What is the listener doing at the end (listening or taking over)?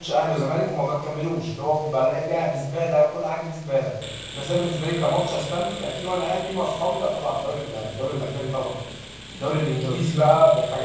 listening